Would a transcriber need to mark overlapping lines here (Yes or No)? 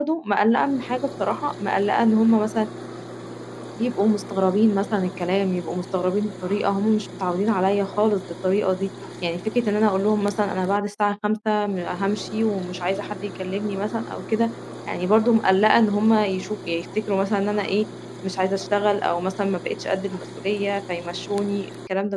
No